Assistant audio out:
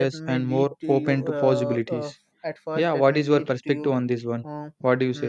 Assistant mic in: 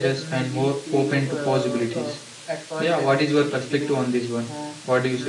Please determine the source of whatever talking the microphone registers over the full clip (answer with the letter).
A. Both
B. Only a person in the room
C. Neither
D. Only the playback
D